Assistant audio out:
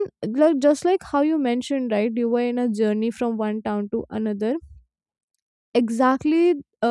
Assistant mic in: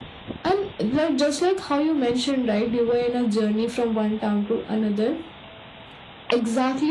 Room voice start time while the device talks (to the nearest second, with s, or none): none